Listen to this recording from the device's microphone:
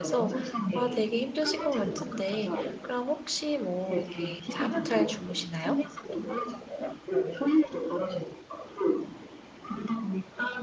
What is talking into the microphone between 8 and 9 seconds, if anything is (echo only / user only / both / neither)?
echo only